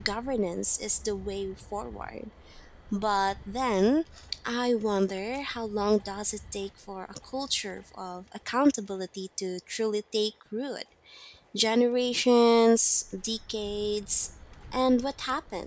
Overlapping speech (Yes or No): No